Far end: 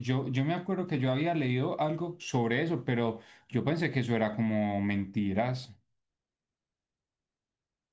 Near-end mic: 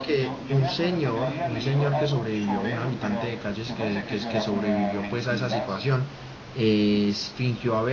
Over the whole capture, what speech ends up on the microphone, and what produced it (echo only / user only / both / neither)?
both